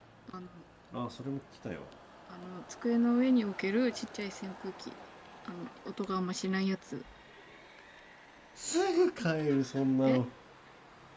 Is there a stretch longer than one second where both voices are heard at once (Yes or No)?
No